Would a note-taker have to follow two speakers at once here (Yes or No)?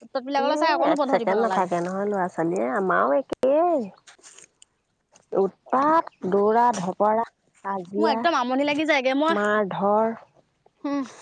Yes